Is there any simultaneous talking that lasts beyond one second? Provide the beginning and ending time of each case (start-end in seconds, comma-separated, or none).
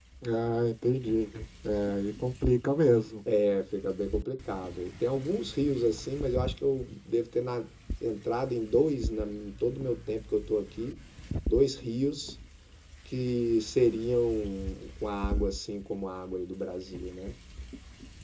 none